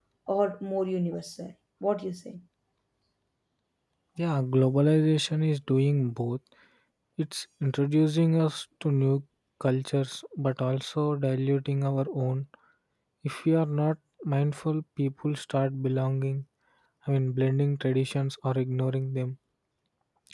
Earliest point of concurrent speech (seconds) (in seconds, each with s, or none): none